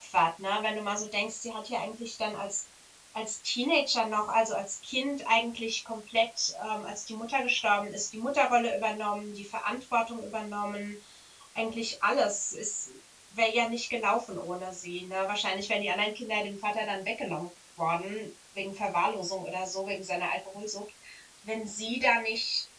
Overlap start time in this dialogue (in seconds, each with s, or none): none